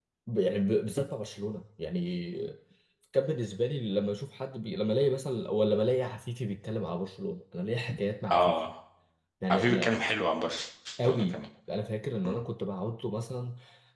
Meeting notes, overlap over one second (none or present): none